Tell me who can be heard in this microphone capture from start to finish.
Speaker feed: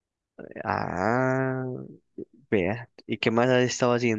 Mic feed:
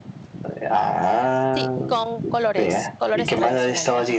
both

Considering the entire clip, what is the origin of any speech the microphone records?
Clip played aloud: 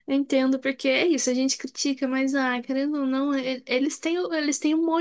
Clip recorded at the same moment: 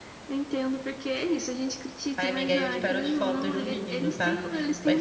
both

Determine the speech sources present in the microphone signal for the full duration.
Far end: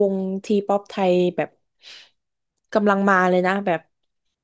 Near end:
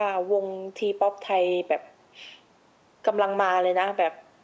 echo only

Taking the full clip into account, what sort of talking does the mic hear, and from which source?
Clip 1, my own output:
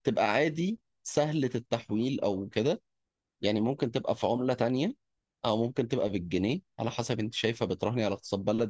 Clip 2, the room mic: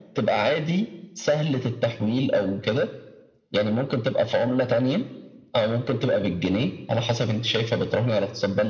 echo only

